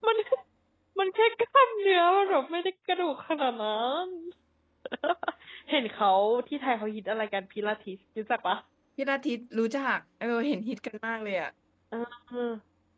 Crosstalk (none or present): none